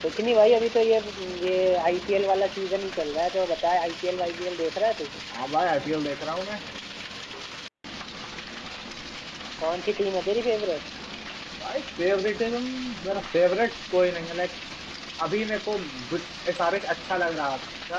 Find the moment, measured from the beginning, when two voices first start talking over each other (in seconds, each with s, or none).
none